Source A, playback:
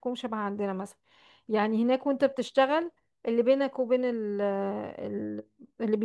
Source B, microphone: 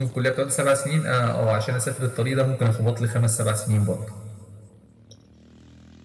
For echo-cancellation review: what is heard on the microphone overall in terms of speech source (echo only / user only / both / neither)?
user only